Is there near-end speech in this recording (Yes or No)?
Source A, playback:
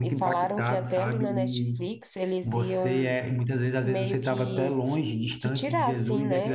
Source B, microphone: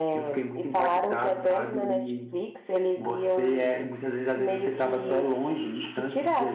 No